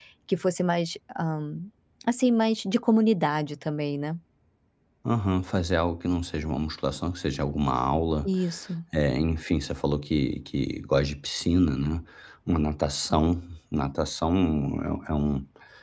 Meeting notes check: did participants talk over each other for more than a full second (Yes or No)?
No